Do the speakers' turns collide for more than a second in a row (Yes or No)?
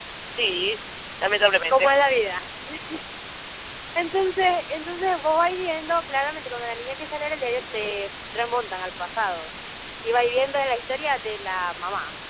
No